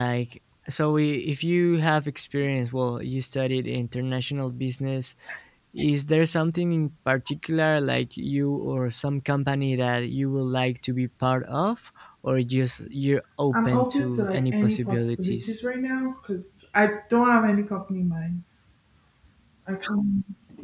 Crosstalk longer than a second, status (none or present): present